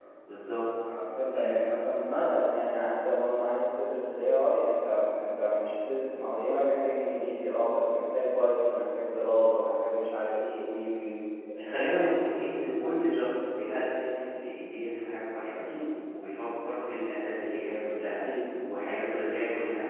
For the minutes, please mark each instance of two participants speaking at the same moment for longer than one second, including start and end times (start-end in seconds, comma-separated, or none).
none